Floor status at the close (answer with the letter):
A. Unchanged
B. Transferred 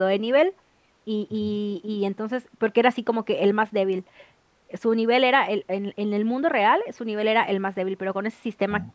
A